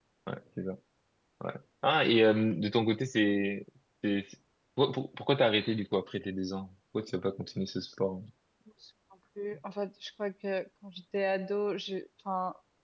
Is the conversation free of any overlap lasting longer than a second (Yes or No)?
Yes